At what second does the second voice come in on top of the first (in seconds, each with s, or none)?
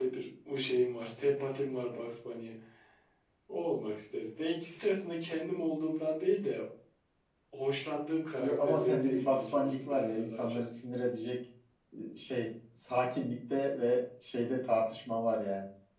8.4 s